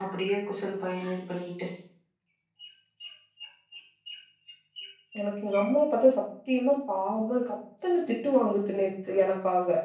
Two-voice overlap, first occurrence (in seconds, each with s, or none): none